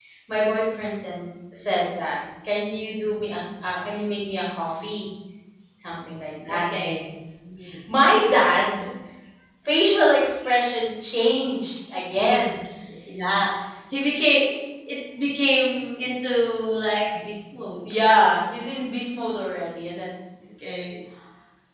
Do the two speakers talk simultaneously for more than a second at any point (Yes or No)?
No